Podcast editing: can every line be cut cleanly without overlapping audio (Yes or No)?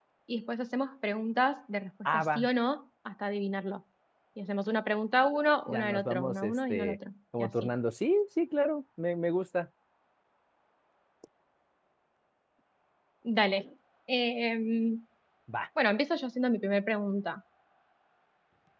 No